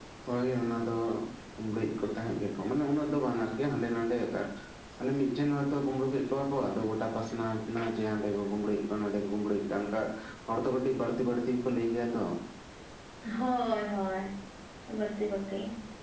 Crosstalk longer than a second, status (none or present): none